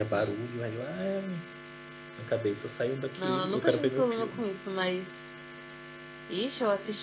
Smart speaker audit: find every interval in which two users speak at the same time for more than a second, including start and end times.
3.2-4.4

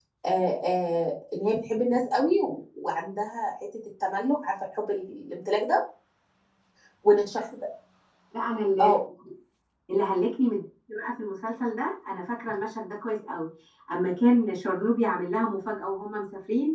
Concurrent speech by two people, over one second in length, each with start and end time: none

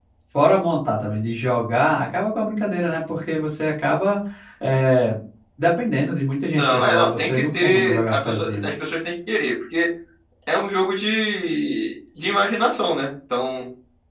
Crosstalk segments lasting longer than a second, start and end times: 6.5-8.6

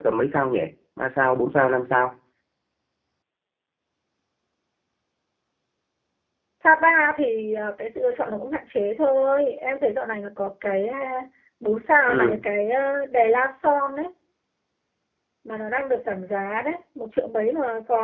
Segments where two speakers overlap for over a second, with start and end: none

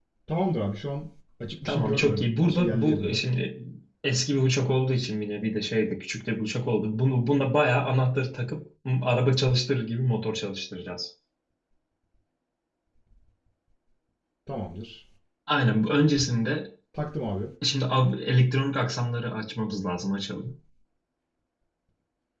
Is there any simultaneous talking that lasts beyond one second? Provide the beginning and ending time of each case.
1.6-3.2

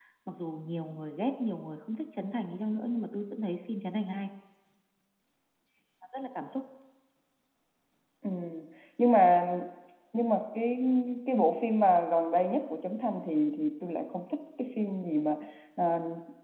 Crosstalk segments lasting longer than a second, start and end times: none

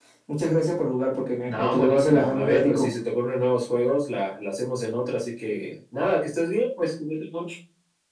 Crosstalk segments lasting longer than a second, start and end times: 1.4-2.9

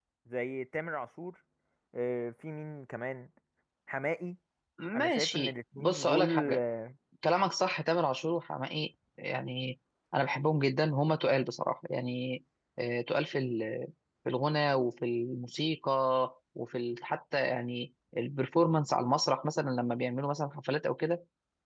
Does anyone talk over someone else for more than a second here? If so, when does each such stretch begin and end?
4.9-6.6

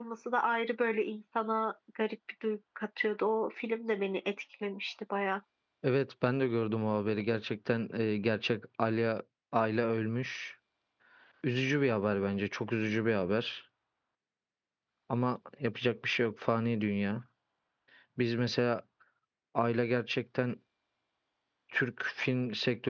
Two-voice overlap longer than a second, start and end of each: none

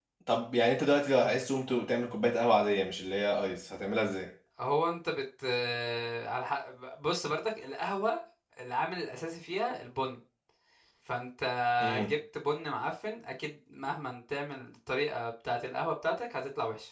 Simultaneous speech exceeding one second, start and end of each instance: none

